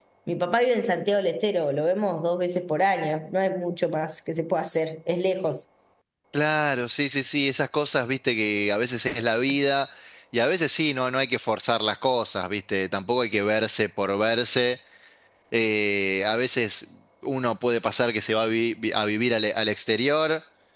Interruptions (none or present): none